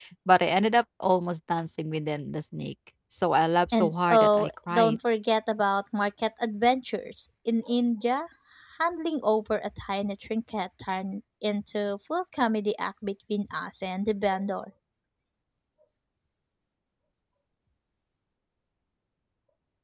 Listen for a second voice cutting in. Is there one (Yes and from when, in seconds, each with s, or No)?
Yes, from 3.7 s